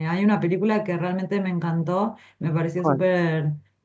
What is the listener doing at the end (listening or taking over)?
listening